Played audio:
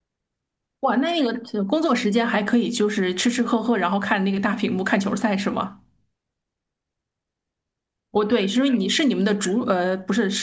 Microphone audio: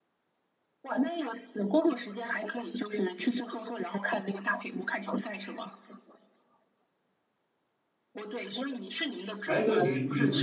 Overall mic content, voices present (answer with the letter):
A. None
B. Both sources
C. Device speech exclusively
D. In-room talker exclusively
B